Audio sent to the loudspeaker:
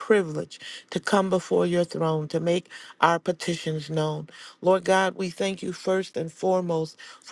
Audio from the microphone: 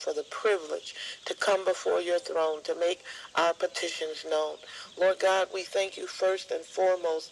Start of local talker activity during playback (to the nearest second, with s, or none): none